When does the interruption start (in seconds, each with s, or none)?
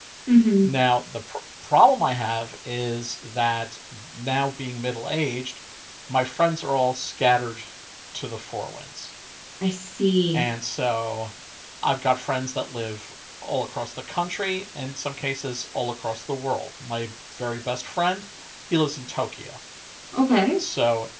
none